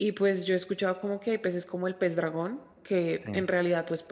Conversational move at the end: listening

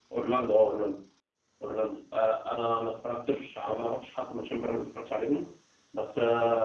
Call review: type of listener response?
listening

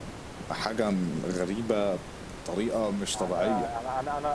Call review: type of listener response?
taking over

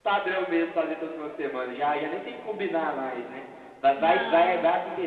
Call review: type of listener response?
listening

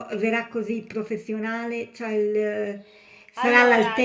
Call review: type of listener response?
listening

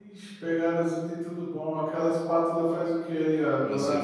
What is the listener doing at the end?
taking over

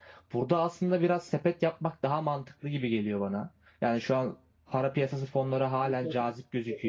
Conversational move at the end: taking over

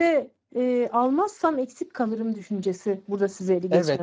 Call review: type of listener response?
taking over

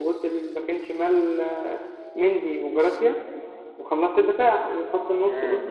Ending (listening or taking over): taking over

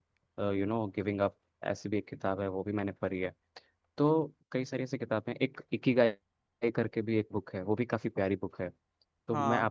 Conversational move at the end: listening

